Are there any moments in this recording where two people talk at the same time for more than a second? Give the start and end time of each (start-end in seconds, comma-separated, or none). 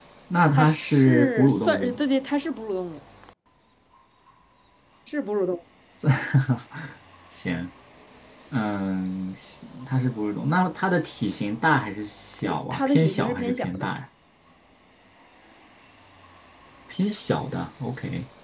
0.6-2.0, 12.4-13.9